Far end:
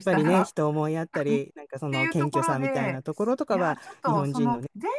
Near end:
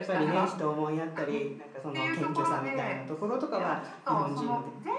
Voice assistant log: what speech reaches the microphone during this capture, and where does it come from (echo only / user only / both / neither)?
echo only